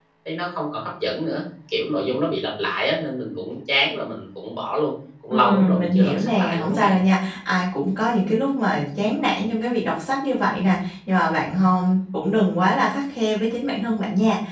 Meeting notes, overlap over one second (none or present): present